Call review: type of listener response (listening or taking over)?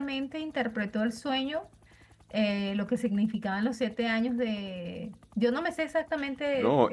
taking over